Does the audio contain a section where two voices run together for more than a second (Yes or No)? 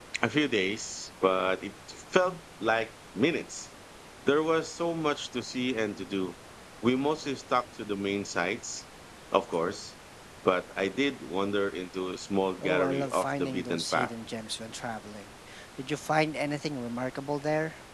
Yes